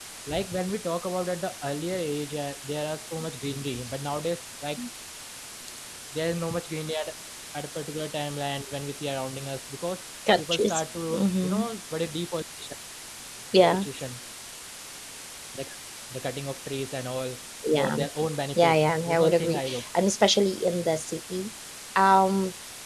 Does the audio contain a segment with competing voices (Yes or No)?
Yes